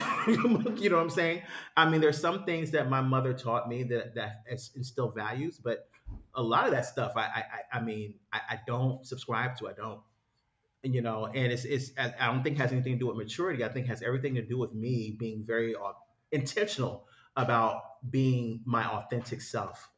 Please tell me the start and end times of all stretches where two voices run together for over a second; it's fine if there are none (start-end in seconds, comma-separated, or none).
none